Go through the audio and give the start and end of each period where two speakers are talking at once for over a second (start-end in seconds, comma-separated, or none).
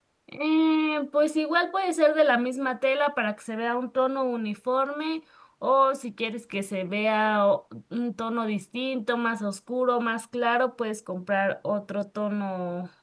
none